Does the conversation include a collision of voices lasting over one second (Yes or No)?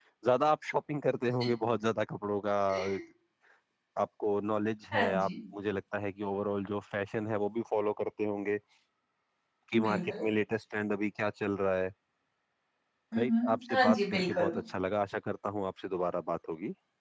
Yes